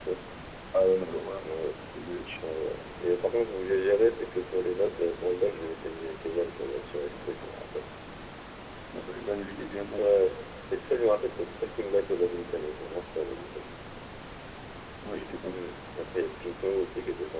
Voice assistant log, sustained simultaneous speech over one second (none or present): none